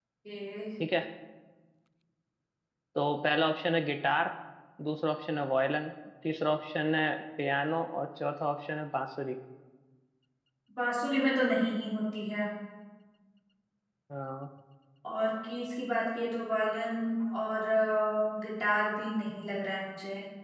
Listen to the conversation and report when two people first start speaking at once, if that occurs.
none

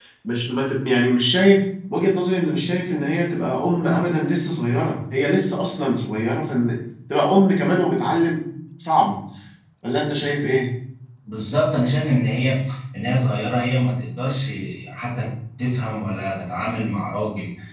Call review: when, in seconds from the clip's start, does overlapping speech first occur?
none

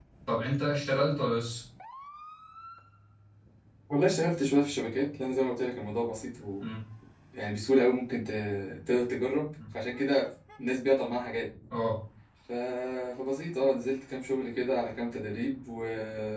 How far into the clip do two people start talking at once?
none

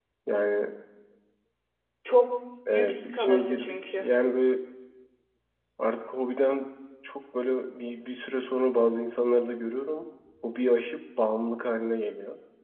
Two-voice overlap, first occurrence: 2.8 s

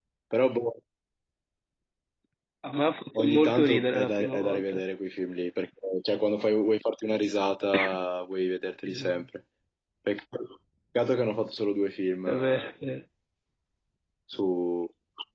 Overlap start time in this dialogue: 3.2 s

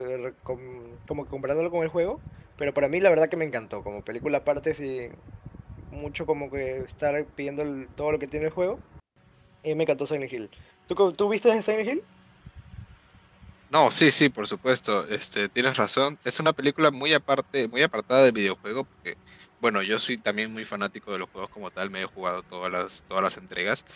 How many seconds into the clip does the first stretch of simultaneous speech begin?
none

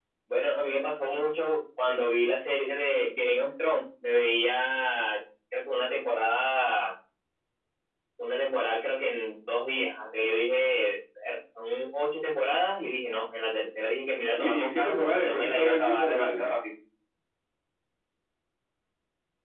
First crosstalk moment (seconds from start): 14.4 s

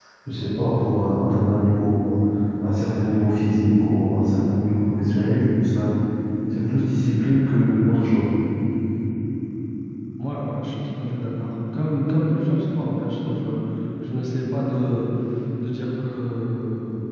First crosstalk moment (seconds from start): none

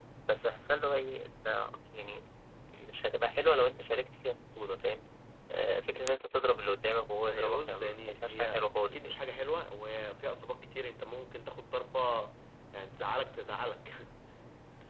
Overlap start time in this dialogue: 7.3 s

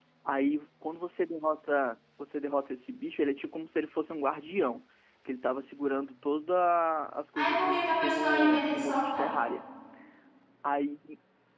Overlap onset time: 7.4 s

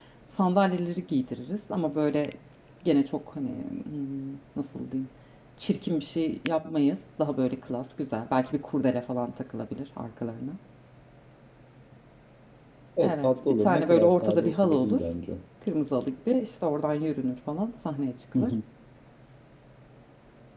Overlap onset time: 13.0 s

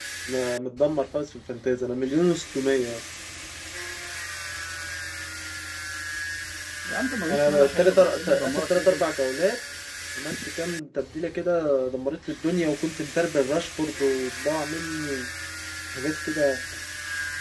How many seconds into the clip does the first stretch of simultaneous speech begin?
7.3 s

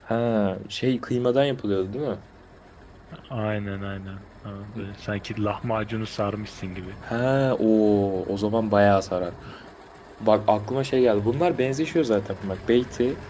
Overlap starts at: none

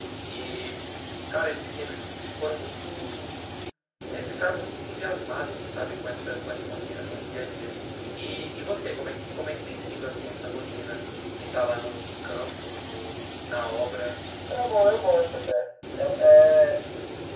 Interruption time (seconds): none

